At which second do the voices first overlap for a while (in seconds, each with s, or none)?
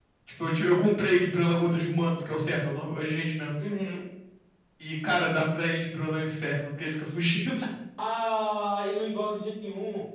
none